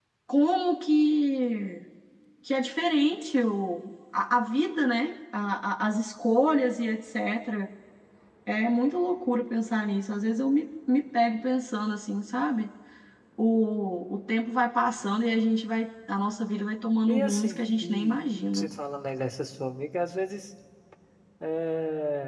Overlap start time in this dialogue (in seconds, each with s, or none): 17.1 s